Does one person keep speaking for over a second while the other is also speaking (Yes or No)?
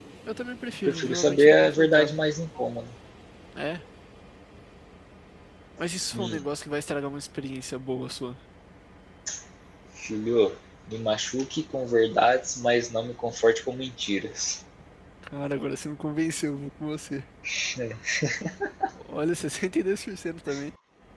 Yes